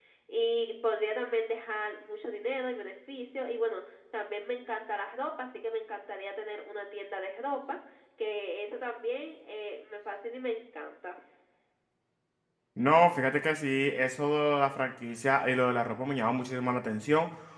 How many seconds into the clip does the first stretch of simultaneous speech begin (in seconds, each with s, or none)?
none